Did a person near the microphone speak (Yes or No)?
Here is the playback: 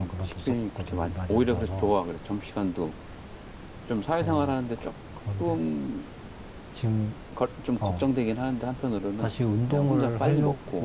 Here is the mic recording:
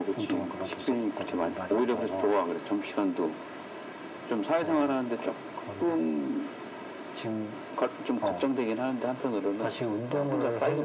No